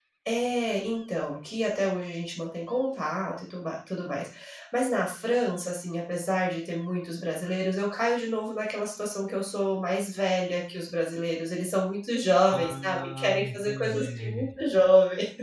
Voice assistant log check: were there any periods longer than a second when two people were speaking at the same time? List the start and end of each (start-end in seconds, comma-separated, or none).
12.5-14.4